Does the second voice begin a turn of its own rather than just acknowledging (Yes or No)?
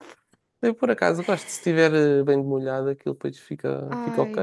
Yes